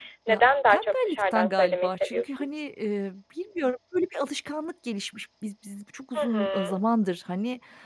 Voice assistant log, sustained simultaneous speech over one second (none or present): present